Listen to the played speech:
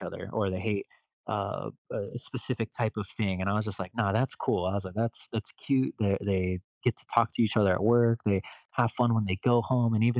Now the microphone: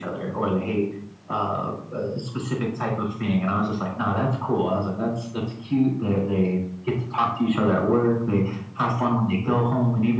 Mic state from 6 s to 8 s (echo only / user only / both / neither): echo only